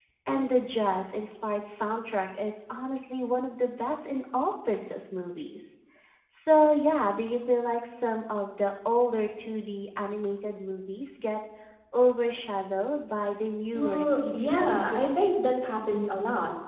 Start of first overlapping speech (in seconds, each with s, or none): 13.7 s